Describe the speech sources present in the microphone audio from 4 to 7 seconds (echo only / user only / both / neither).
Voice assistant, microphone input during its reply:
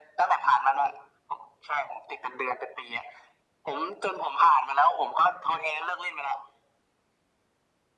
echo only